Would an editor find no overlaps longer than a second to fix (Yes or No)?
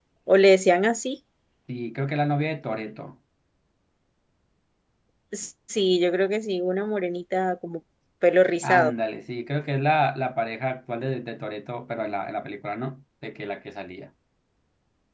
Yes